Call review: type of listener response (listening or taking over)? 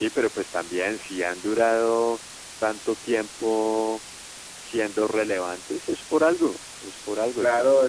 taking over